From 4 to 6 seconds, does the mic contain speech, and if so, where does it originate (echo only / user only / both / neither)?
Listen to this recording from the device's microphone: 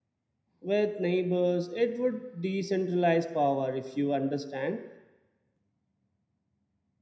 user only